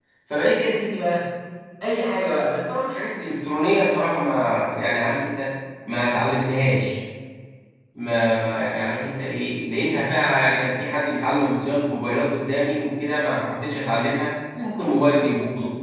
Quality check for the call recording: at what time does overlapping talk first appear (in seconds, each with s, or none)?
none